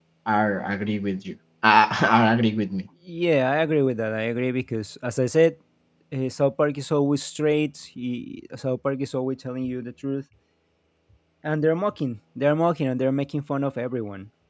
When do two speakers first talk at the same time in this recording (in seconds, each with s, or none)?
none